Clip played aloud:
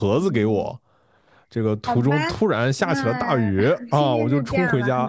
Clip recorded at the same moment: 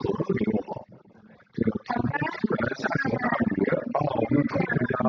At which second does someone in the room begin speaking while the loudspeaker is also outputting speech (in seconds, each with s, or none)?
none